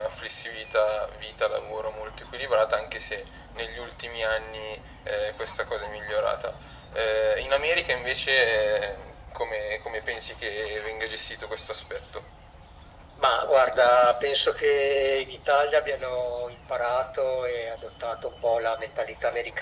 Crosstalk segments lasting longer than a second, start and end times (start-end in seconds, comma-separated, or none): none